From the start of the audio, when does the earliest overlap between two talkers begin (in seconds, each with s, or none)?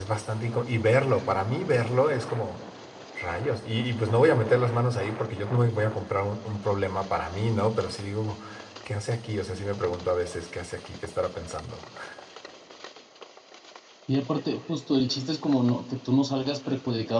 none